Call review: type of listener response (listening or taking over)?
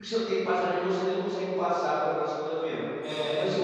listening